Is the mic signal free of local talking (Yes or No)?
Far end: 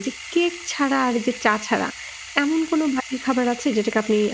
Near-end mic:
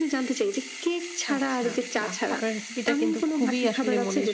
No